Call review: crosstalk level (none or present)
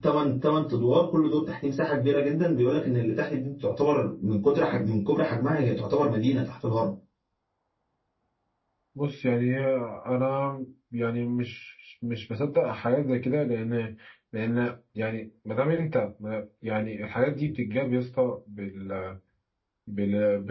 none